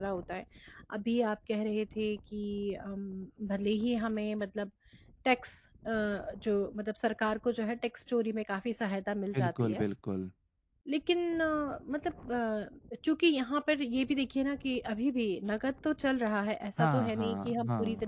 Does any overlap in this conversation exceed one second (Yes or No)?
Yes